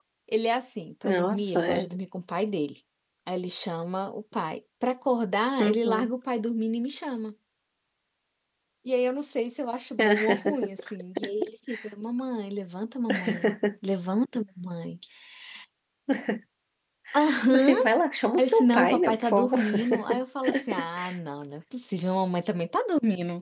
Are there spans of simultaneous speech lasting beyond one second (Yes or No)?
Yes